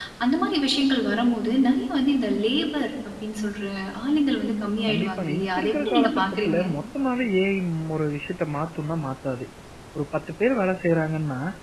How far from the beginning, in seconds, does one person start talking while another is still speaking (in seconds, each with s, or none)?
4.9 s